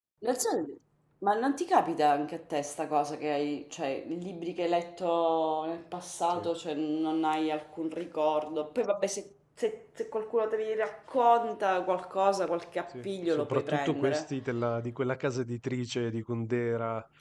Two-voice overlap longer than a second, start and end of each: 13.0-14.3

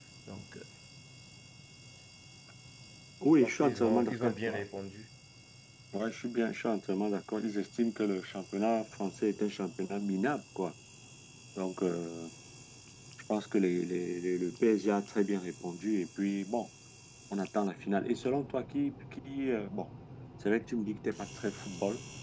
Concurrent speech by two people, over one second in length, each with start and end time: 3.4-4.6

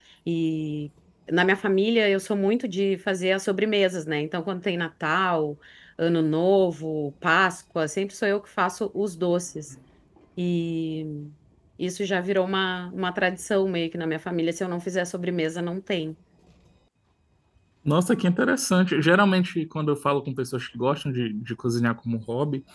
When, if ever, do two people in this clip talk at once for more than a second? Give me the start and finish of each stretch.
none

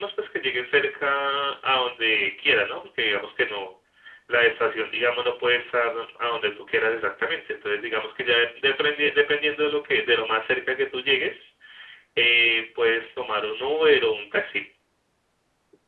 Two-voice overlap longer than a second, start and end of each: none

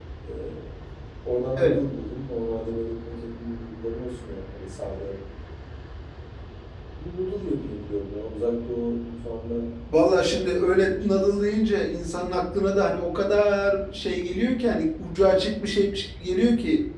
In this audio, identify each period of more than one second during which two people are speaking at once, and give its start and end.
10.1-11.3

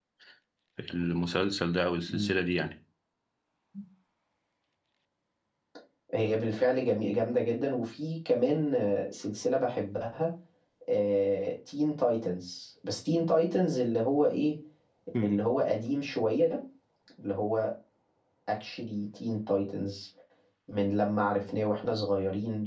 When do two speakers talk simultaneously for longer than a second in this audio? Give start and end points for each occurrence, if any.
none

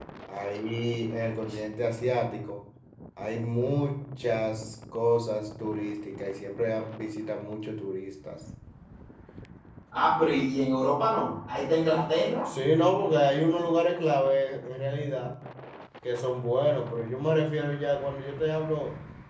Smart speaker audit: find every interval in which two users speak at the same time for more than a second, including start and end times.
none

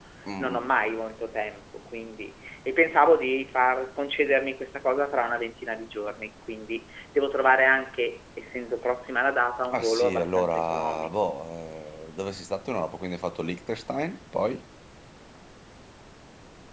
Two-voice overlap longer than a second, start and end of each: 9.7-11.1

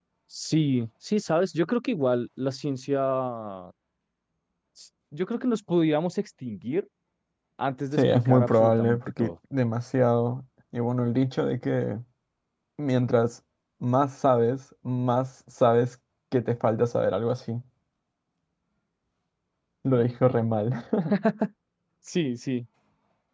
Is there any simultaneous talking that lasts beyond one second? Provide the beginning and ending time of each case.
8.0-9.3

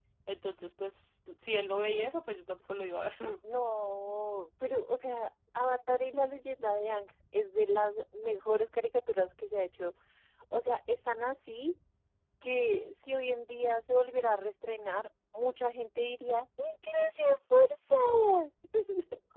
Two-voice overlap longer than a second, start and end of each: none

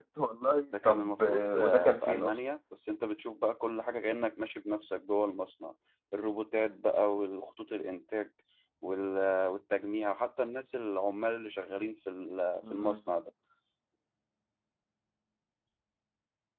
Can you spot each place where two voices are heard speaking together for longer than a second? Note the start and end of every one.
0.7-2.4

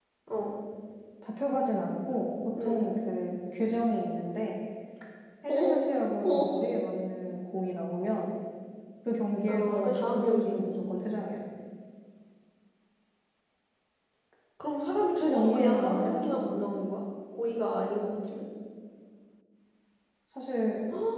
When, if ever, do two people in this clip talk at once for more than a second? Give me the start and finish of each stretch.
9.5-10.7, 15.1-16.6

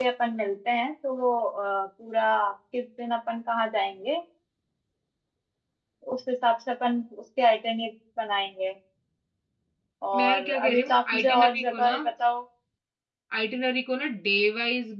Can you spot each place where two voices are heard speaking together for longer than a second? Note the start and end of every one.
10.2-12.0

